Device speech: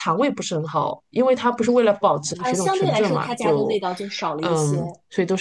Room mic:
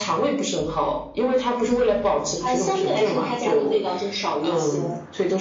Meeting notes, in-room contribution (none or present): none